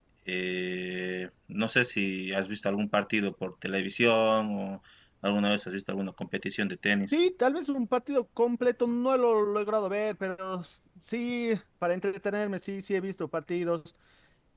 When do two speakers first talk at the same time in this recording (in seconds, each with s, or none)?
none